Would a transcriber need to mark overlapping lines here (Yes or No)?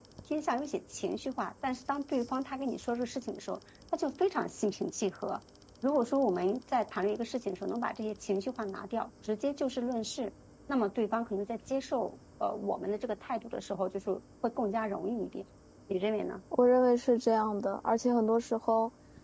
No